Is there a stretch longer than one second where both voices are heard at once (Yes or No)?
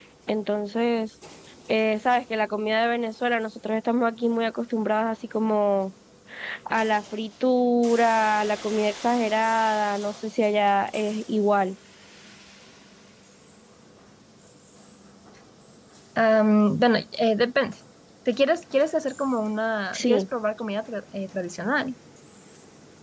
No